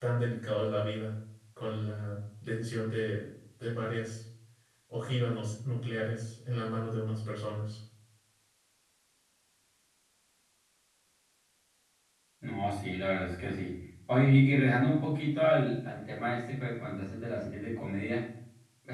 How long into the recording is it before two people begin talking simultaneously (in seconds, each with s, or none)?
none